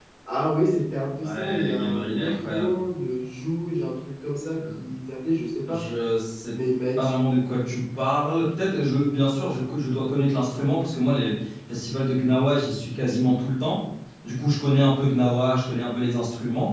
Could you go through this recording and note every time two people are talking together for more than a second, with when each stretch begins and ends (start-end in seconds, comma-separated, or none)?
1.2-2.7